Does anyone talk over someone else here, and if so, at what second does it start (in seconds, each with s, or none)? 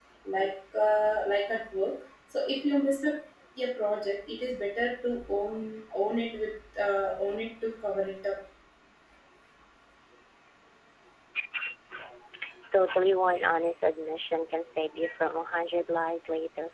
none